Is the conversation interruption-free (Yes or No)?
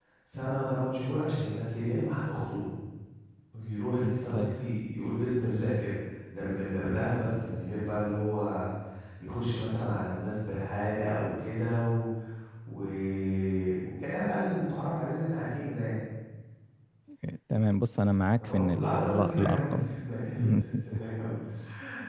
No